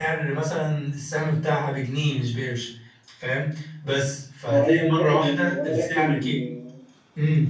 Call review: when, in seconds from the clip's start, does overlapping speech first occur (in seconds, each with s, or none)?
4.5 s